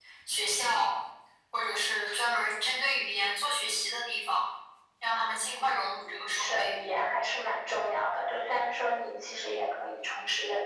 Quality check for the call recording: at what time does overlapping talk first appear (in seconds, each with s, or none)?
5.5 s